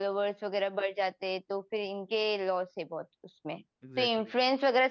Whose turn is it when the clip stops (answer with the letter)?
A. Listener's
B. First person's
B